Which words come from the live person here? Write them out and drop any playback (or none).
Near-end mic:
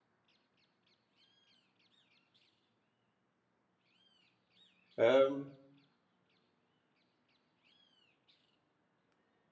Emm